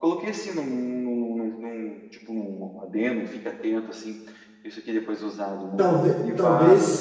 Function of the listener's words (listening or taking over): taking over